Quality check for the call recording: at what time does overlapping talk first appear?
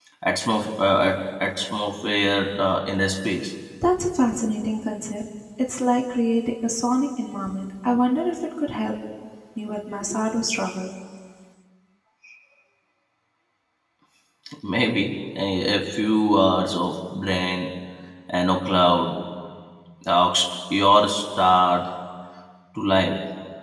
none

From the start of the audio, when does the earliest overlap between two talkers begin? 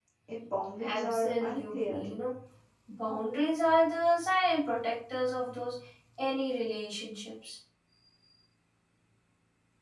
0.8 s

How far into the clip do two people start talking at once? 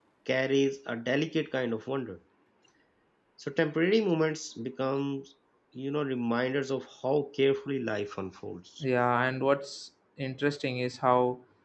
none

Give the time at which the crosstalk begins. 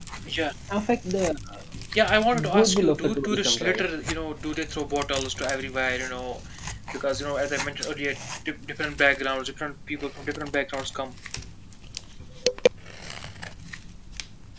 2.6 s

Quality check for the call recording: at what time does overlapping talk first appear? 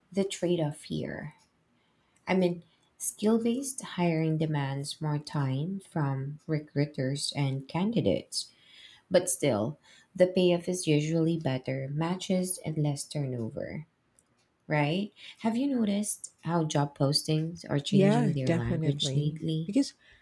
17.9 s

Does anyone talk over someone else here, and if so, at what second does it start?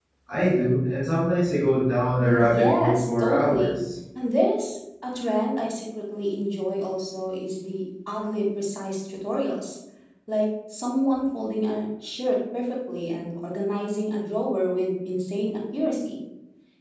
2.1 s

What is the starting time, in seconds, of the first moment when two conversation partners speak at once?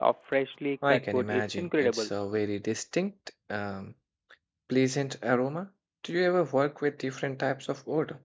0.9 s

